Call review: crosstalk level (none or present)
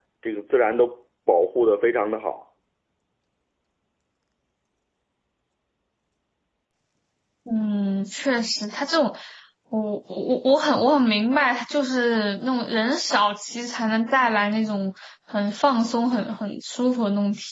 none